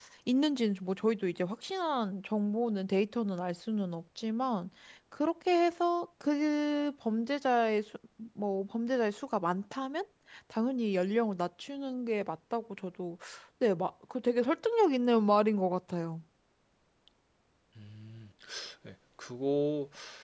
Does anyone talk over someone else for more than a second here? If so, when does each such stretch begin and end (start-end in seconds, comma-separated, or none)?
none